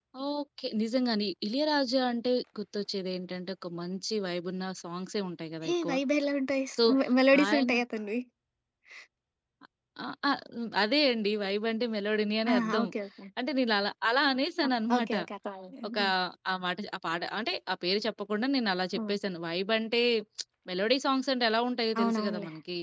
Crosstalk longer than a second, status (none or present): none